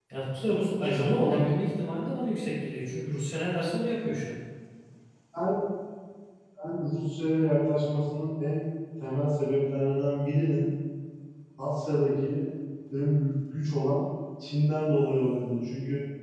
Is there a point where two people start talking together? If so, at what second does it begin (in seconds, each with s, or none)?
none